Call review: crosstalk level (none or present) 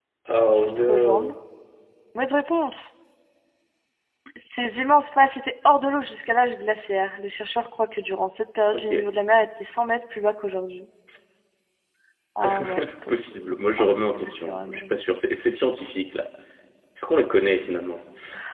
present